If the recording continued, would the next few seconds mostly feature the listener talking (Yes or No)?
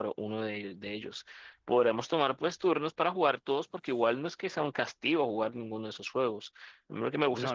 No